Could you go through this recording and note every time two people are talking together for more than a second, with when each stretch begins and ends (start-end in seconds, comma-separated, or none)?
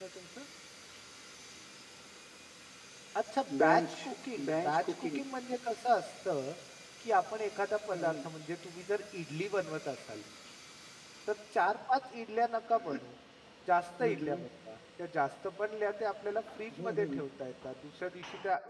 3.6-5.2